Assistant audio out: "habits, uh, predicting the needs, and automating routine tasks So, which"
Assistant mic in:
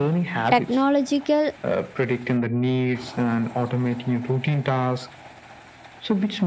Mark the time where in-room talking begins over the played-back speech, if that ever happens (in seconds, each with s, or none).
0.5 s